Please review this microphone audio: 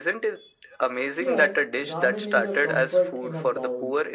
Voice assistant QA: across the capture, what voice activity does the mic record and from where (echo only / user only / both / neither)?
both